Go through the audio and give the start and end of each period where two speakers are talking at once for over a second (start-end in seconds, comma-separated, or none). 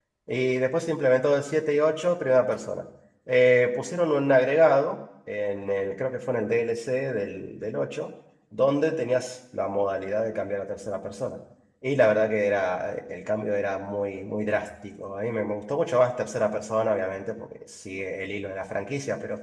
none